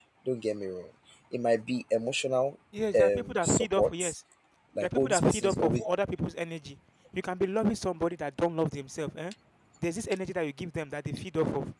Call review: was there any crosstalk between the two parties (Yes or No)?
Yes